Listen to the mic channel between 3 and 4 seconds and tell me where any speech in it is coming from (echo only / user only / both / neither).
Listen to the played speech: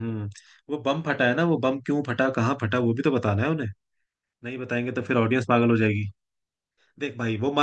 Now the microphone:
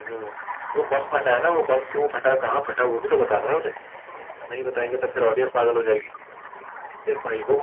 echo only